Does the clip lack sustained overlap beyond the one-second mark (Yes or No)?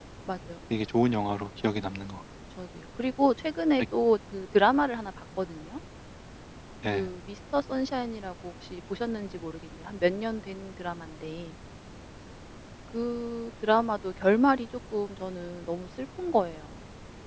Yes